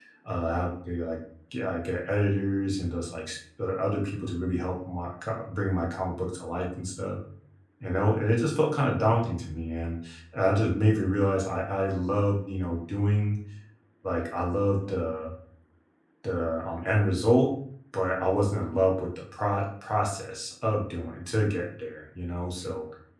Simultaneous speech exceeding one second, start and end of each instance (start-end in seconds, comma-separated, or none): none